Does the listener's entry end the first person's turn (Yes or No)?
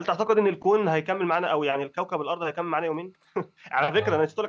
No